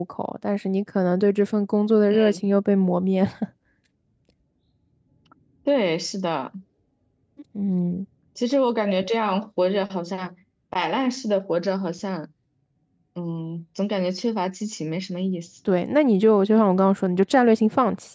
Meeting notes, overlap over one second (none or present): none